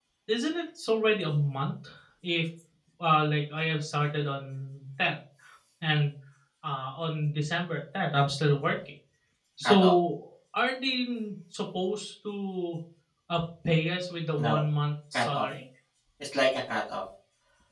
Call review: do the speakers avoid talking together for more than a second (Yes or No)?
Yes